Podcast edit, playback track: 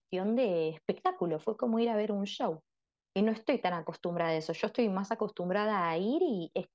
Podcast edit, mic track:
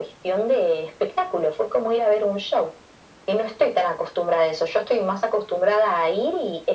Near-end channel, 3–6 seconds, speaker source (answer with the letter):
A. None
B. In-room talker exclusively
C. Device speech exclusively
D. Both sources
C